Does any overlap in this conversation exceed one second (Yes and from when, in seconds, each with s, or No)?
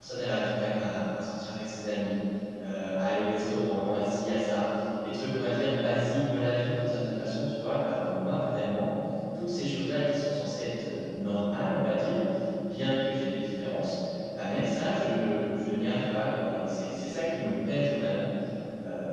No